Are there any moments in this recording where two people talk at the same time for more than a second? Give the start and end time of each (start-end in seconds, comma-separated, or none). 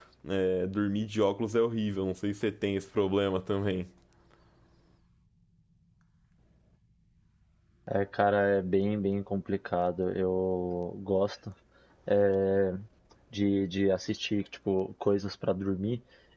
none